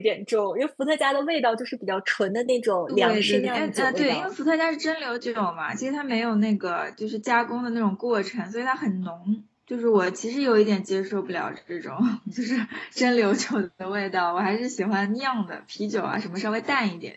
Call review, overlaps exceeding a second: present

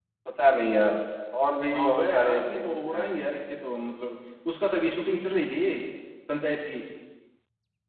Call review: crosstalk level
present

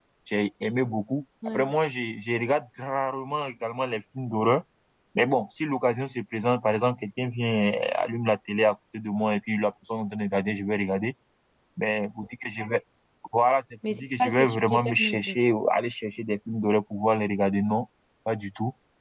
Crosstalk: present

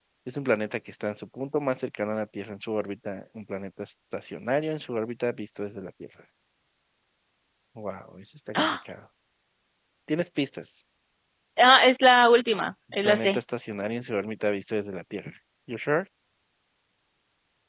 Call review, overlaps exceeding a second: none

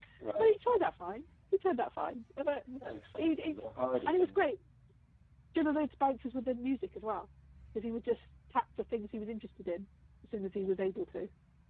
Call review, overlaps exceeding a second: none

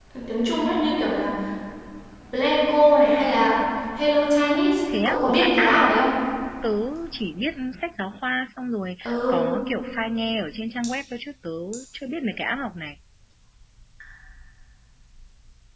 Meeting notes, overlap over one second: present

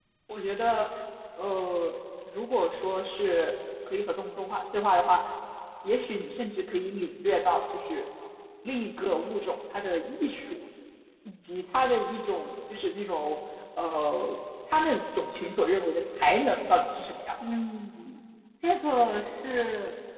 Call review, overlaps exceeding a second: none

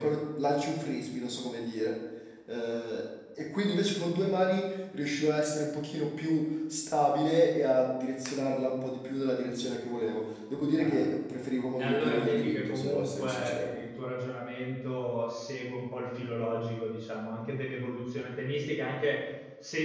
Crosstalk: present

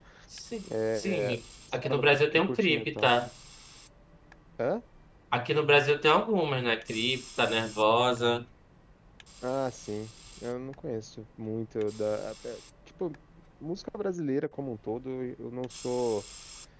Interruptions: present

